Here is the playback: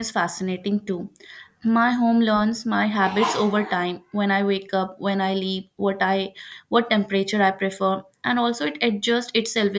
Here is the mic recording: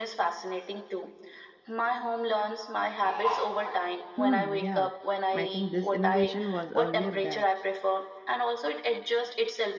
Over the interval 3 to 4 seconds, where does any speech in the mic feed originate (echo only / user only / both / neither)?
echo only